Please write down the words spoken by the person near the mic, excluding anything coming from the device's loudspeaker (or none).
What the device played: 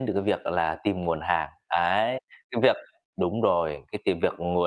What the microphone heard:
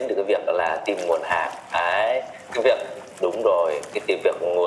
none